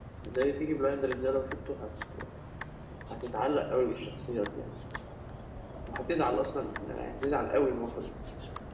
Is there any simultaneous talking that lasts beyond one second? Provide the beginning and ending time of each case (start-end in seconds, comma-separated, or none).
none